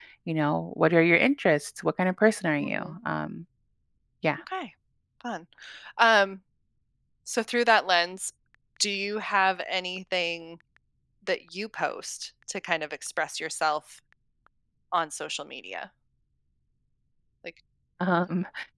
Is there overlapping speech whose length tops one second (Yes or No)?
No